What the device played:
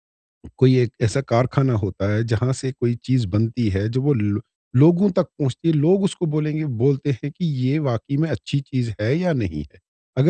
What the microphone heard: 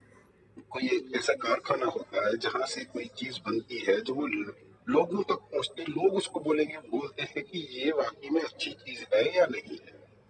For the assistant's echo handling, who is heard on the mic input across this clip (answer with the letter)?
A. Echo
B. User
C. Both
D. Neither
A